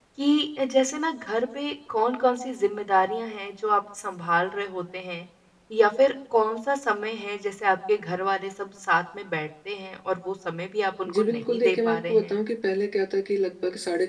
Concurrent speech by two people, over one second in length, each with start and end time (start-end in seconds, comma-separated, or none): 11.1-12.4